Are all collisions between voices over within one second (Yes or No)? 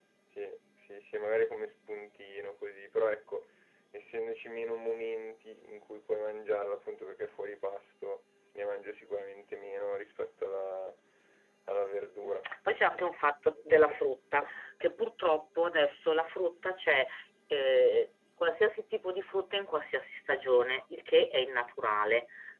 Yes